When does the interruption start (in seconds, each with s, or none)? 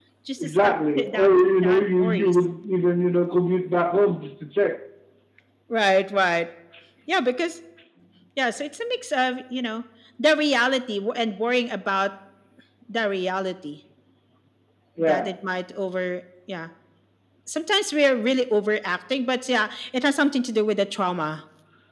0.6 s